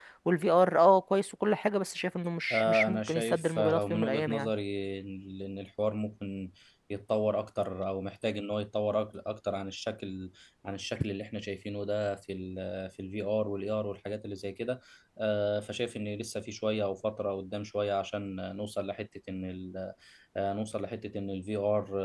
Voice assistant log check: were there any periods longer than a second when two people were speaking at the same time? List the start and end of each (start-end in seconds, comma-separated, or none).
2.5-4.5